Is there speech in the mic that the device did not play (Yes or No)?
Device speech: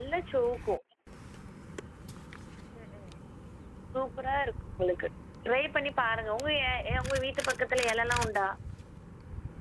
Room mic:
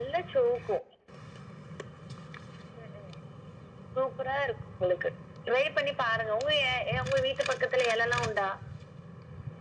No